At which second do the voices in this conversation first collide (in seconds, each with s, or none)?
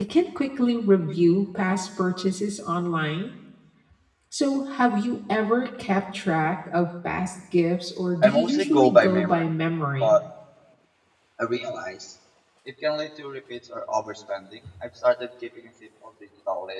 8.2 s